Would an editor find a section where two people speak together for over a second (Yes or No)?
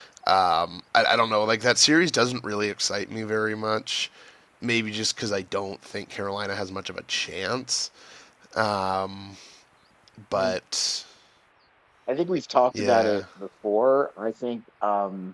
No